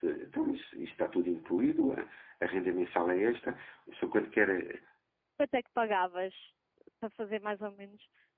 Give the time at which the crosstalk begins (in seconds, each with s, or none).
none